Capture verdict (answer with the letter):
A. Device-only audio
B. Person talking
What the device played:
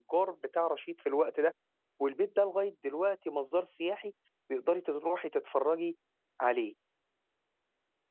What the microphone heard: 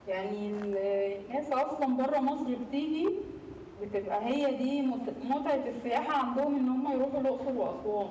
B